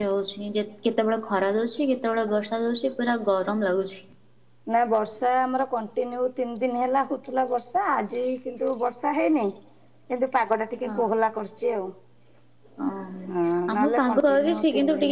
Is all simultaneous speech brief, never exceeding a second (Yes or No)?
No